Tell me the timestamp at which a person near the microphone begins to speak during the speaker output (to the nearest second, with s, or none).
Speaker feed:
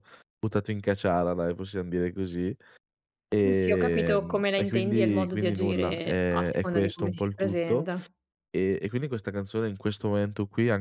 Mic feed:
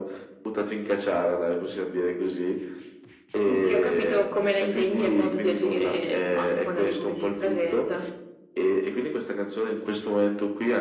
none